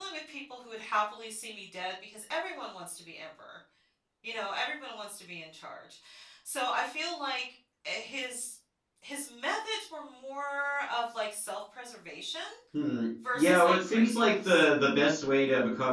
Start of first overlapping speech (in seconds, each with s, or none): 13.4 s